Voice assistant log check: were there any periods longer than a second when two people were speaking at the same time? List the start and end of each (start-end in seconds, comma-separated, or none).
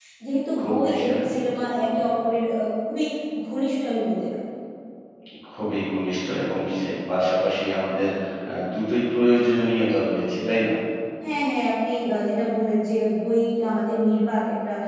0.6-2.1